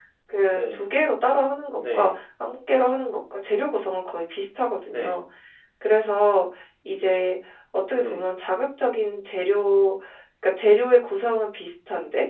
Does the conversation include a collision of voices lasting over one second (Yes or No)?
No